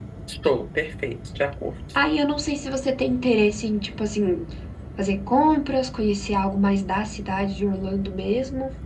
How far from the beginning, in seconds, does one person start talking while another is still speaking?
none

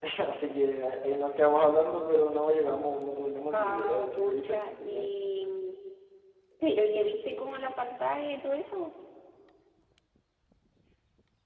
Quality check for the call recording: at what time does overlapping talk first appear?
3.5 s

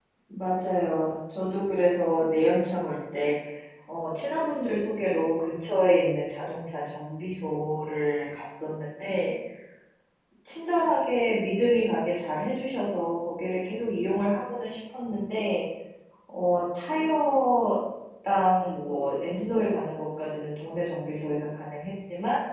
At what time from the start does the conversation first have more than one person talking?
none

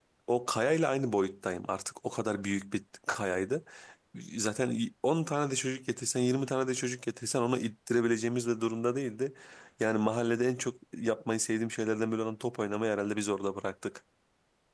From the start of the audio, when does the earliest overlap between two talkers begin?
none

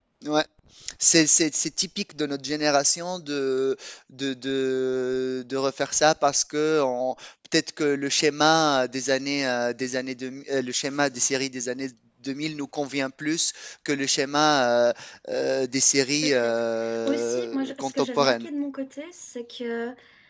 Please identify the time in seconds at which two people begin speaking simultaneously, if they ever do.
16.2 s

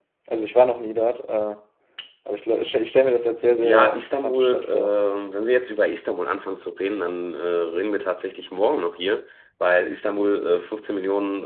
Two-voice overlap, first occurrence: 3.6 s

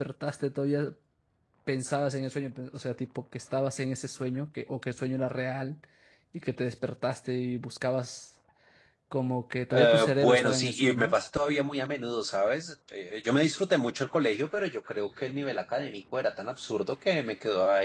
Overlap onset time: 9.8 s

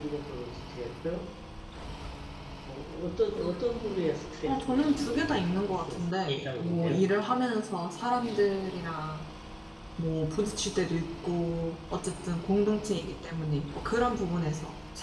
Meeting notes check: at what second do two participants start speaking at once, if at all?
4.4 s

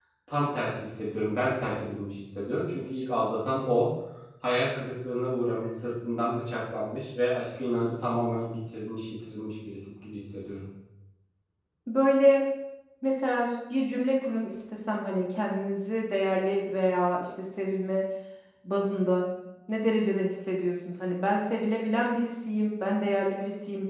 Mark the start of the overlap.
none

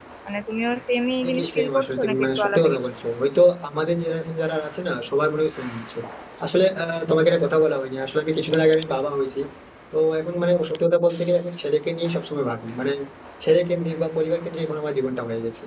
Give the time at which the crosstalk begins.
1.3 s

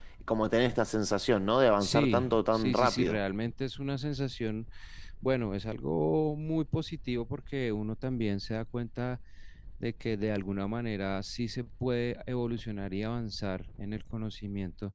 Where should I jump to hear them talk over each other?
1.8 s

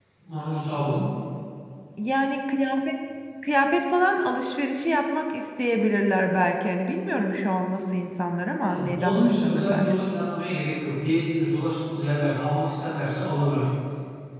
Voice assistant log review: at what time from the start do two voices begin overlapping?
8.7 s

